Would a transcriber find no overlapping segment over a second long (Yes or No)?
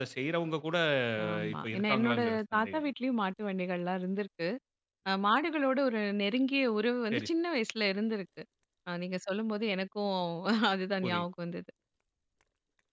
No